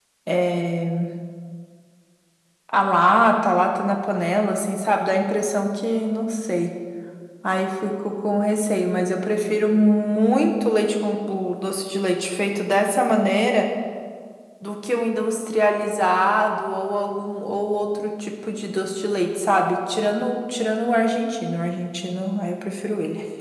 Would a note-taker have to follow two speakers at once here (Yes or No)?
No